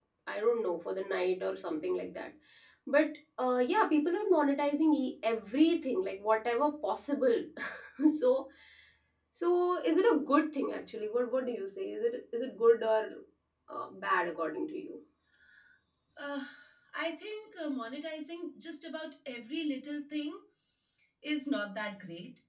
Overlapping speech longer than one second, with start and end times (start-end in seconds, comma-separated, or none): none